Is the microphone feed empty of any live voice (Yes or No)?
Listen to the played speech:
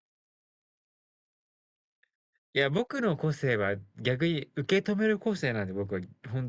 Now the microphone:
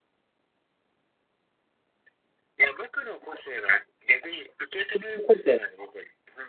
Yes